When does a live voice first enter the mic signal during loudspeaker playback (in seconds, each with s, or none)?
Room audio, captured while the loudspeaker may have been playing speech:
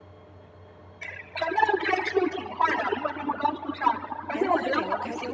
4.3 s